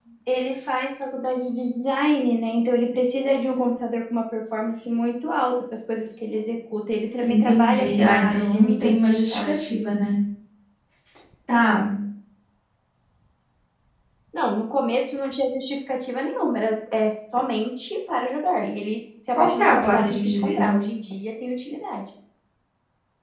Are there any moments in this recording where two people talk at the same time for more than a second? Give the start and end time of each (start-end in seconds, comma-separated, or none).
7.3-9.8, 19.4-20.7